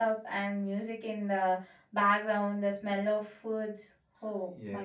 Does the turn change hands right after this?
Yes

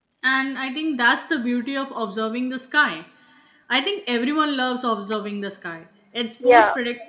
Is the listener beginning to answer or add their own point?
No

